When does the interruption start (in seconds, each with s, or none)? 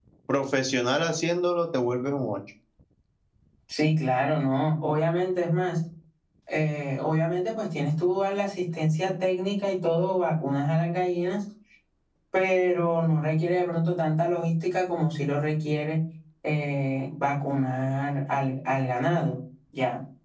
none